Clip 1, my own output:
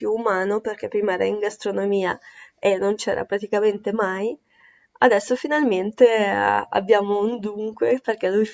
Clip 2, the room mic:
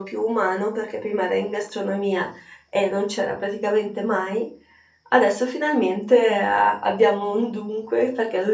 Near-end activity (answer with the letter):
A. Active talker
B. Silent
B